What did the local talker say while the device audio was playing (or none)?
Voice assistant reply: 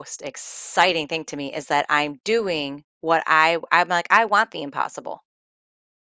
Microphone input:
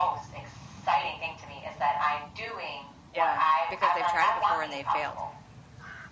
Yeah, because they've tried it before and they failed,